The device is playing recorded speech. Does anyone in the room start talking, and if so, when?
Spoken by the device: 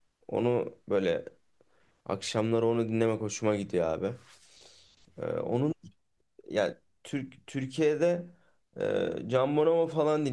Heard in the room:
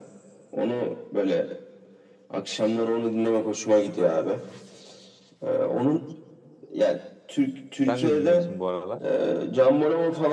7.8 s

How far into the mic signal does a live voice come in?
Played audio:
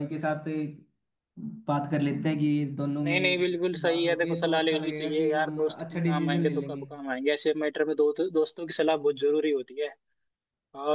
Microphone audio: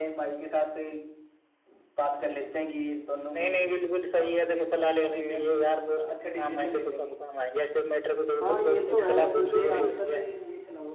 8.4 s

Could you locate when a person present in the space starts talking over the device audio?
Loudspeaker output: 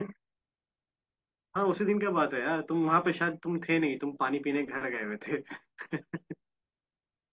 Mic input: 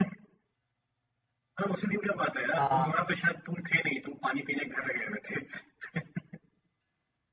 2.6 s

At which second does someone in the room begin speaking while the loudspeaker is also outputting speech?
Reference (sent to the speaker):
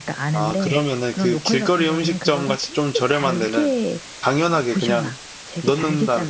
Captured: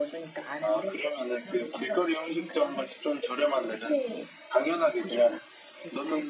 none

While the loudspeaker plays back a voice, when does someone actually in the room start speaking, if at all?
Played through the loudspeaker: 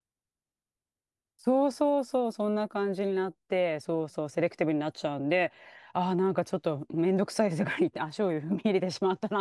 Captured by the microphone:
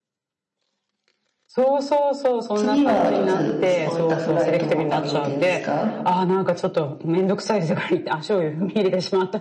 2.5 s

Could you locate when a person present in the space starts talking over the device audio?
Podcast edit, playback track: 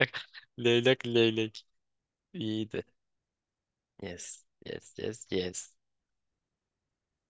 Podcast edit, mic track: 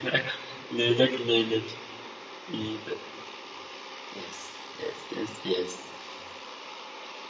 none

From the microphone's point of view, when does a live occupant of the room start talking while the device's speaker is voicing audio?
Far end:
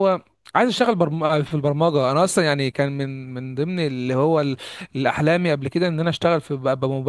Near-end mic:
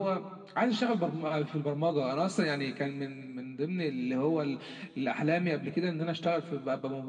none

